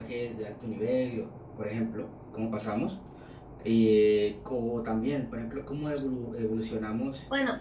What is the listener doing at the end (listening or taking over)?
listening